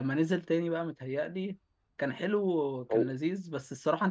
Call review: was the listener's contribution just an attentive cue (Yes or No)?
Yes